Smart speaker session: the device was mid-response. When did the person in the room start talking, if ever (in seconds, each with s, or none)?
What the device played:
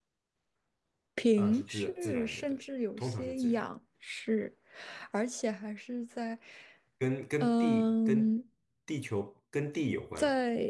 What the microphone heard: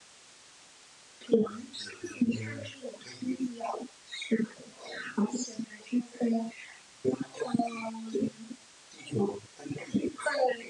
2.3 s